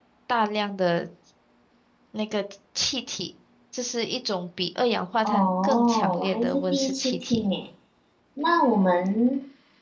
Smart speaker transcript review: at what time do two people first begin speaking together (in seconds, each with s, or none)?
5.2 s